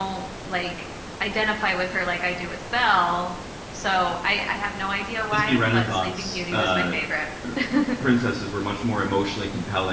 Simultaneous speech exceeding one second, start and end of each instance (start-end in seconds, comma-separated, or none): 5.3-6.8